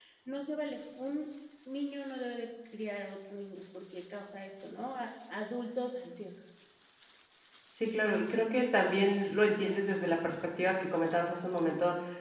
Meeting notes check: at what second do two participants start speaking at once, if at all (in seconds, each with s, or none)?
none